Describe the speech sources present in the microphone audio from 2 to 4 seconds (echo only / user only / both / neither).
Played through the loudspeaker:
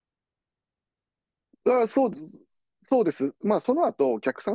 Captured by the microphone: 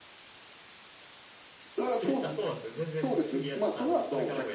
both